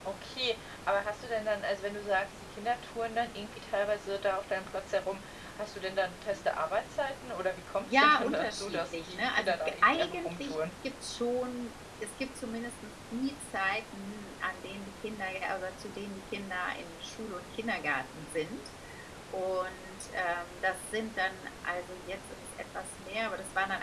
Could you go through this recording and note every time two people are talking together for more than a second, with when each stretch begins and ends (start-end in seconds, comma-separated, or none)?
7.9-10.6